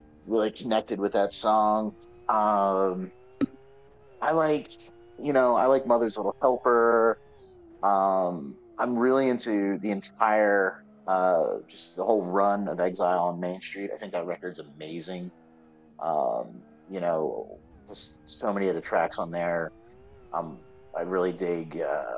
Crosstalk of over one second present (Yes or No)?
No